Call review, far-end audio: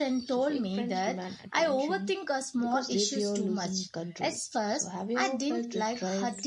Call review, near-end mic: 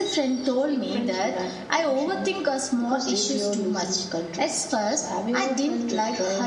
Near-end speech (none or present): none